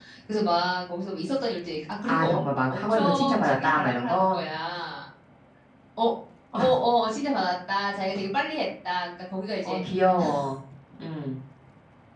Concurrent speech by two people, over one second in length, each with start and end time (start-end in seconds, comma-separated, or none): 2.0-4.5